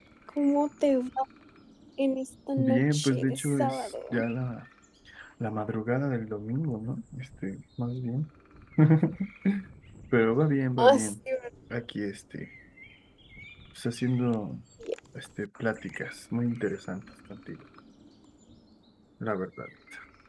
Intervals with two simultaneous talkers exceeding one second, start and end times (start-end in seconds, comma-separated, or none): 2.6-3.9